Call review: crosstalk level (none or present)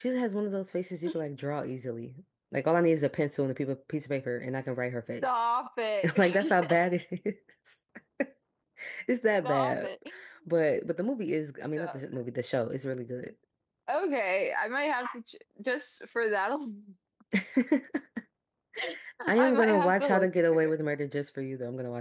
present